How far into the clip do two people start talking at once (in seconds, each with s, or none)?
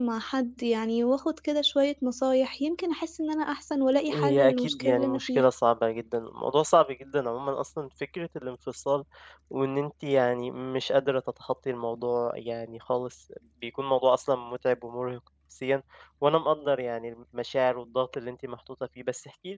4.1 s